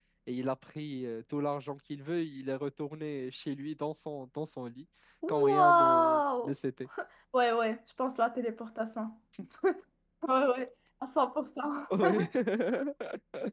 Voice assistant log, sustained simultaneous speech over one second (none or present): present